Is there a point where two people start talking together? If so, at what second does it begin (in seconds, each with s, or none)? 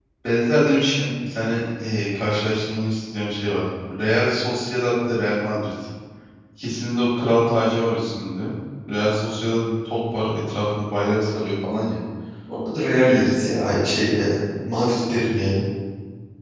none